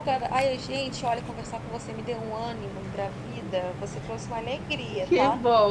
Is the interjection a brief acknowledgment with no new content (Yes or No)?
No